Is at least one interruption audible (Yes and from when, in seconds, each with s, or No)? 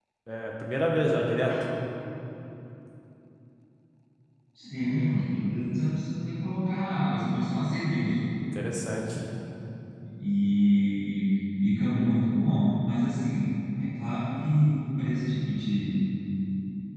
No